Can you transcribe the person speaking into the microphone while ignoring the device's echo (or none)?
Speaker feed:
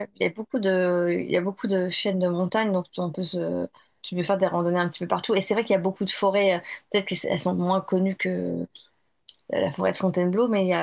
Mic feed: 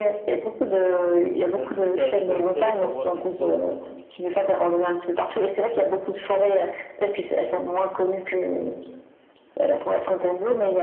d'en discuter avec toi, histoire de savoir si toi aussi,